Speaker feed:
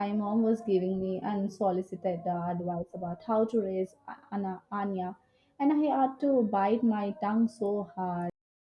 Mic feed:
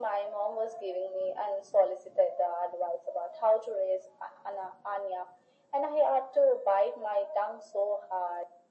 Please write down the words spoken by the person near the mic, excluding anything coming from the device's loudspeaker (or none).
none